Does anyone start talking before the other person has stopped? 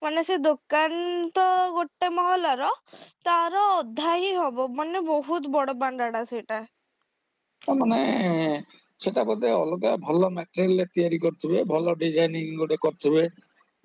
No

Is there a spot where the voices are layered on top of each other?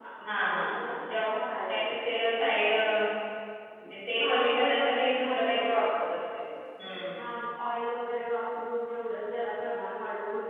Yes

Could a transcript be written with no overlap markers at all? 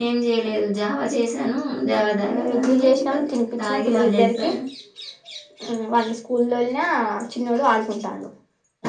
No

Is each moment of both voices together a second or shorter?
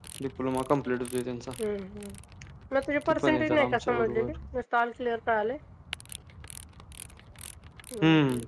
No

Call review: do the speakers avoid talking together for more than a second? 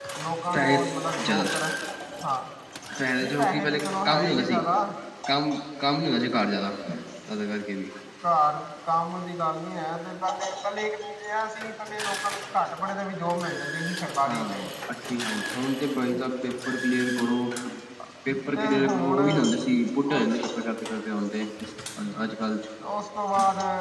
No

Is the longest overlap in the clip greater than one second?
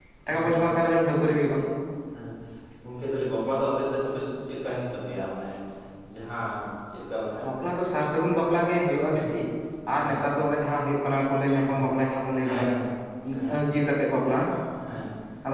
No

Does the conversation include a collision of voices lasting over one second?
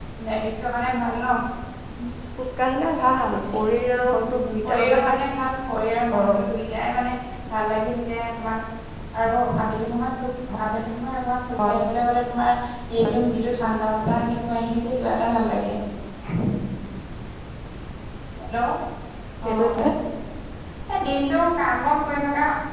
No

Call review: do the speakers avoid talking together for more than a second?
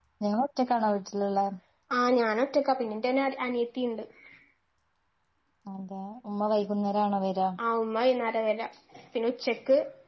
Yes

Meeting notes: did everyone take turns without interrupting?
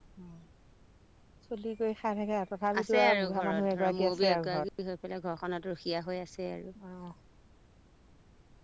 No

